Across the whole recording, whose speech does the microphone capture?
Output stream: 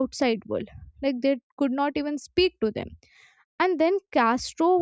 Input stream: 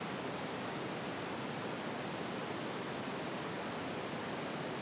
neither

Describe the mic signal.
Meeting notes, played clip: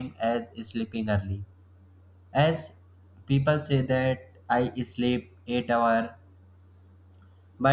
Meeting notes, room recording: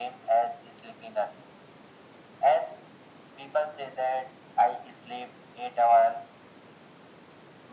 echo only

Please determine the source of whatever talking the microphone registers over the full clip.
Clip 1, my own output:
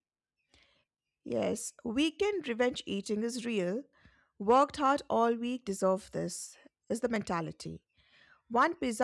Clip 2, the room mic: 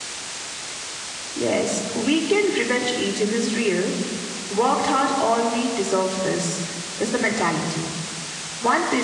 echo only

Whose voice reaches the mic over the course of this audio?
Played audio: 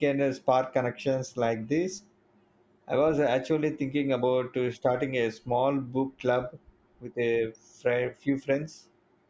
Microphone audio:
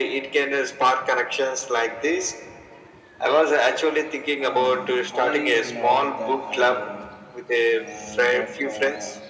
both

